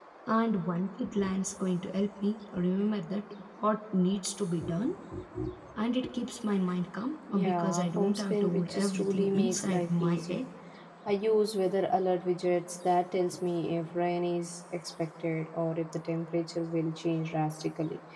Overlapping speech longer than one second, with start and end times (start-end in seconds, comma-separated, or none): 7.3-10.4